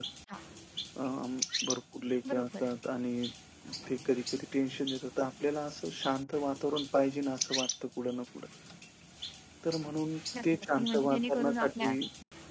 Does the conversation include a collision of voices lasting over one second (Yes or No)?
Yes